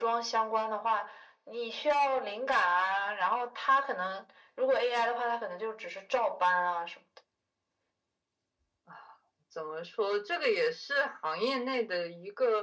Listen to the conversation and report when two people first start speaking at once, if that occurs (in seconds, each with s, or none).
none